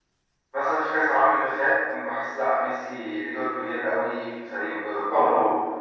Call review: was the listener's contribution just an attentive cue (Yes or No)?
Yes